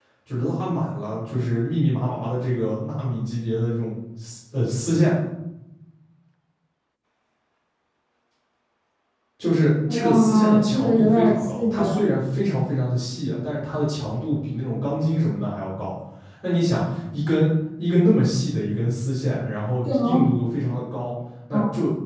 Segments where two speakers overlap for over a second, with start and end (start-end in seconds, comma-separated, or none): 9.9-12.1